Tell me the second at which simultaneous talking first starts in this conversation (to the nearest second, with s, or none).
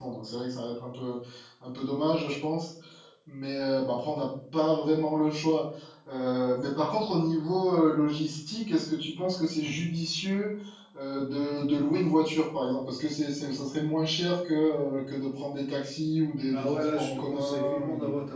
17 s